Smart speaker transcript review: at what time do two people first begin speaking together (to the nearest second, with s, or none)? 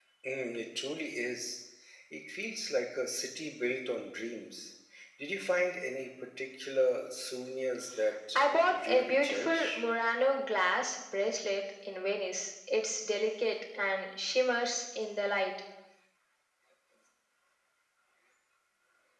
8 s